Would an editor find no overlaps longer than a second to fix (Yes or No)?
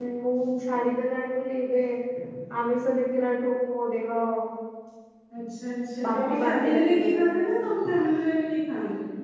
No